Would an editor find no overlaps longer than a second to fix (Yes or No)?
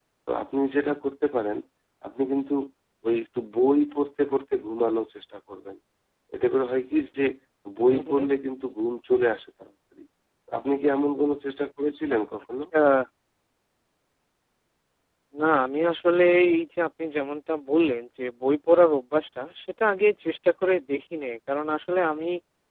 Yes